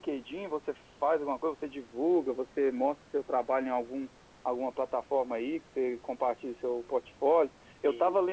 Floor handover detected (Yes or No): No